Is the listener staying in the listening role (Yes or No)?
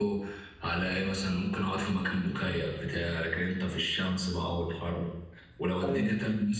Yes